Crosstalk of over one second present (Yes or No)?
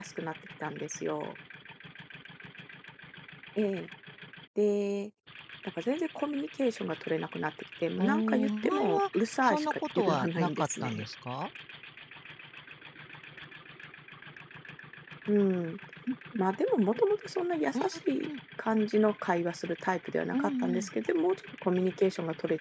Yes